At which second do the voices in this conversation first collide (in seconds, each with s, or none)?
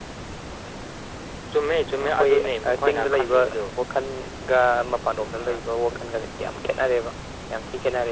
1.9 s